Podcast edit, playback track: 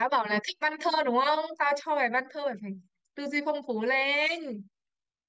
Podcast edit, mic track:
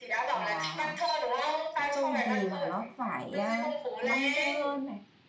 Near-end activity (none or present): present